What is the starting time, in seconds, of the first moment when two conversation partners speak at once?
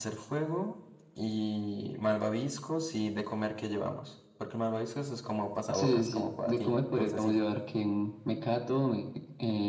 5.7 s

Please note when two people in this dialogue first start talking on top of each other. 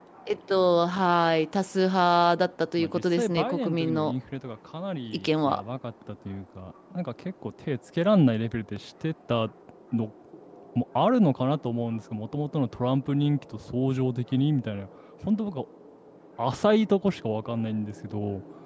2.8 s

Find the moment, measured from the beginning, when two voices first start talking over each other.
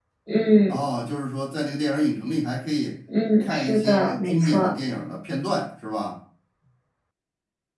3.4 s

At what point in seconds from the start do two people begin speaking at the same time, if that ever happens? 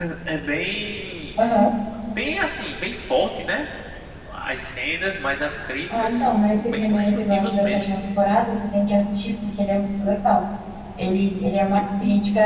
5.9 s

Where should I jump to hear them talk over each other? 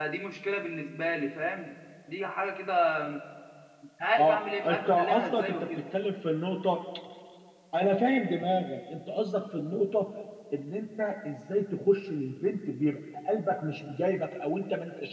4.2 s

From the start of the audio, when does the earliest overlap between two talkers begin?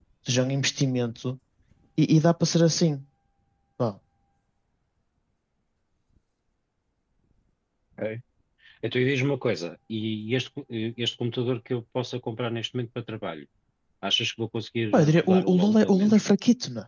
14.9 s

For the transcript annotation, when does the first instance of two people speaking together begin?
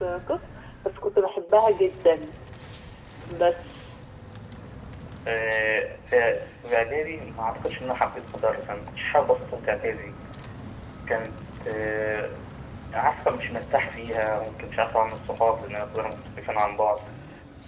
none

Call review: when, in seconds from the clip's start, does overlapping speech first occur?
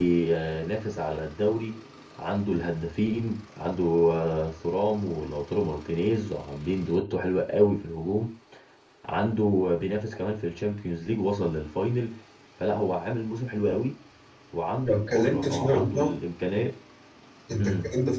14.8 s

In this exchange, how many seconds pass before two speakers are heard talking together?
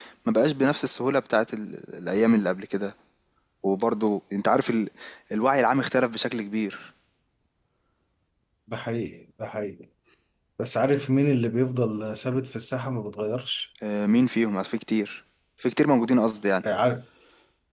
none

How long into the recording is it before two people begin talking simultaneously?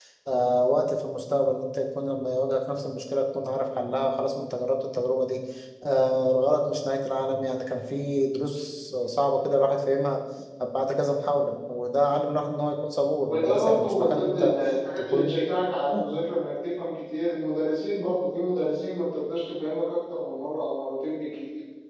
13.3 s

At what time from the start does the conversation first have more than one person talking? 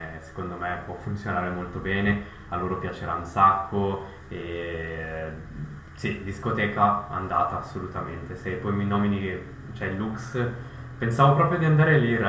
none

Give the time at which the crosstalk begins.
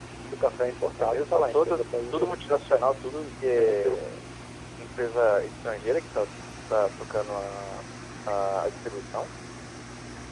1.0 s

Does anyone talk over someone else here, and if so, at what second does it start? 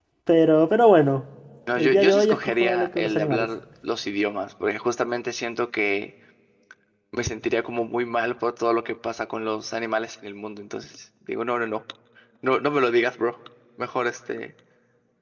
1.8 s

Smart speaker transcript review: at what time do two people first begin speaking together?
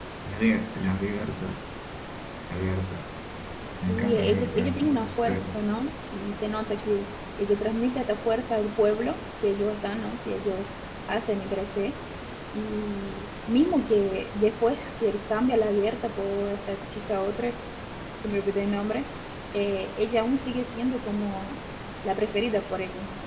3.9 s

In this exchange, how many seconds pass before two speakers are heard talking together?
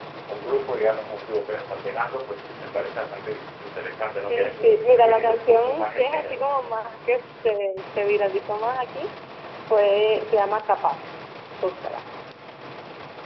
4.3 s

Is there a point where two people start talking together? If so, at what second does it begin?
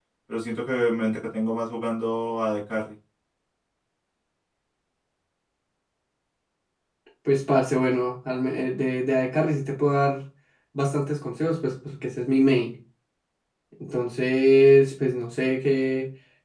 none

